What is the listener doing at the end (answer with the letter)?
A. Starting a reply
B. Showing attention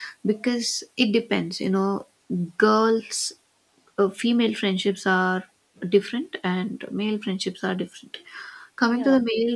B